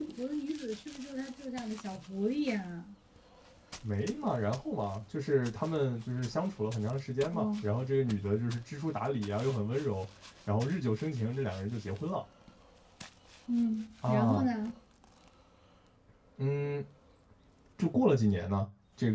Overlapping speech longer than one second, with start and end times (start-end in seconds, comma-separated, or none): none